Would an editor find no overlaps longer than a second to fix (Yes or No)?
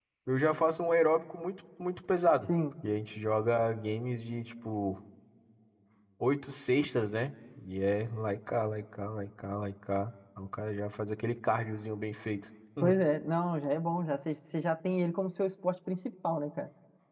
Yes